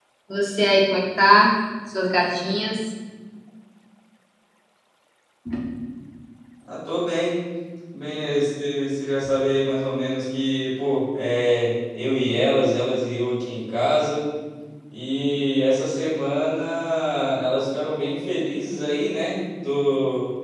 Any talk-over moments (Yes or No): No